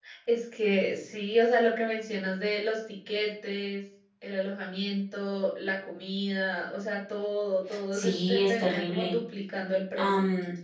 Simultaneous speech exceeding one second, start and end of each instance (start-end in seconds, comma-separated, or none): 7.9-9.1